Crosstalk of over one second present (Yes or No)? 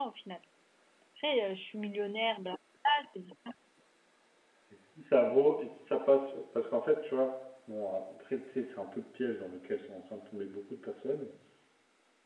No